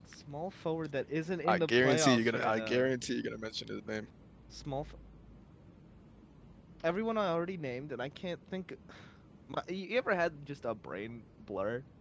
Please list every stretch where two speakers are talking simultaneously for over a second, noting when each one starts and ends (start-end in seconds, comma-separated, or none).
1.4-2.9